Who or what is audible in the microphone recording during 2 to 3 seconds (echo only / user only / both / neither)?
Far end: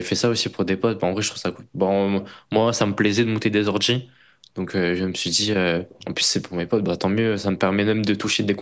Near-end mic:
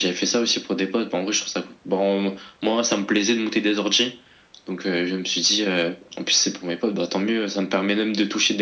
echo only